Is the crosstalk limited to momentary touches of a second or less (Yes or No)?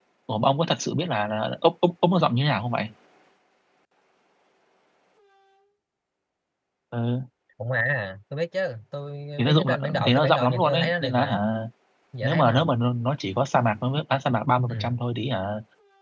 No